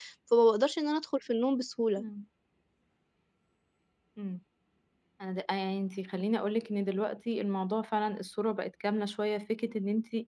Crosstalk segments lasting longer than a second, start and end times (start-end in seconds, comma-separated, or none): none